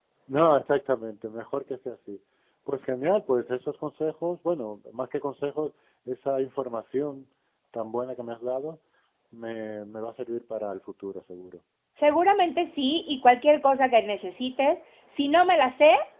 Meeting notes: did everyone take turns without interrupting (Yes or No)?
Yes